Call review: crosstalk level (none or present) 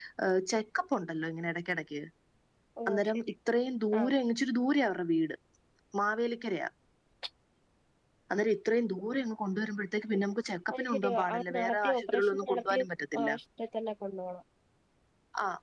present